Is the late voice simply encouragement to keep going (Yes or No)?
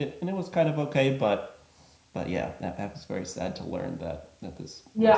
No